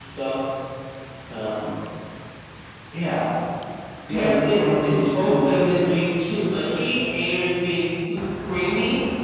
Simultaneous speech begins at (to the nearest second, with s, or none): 4 s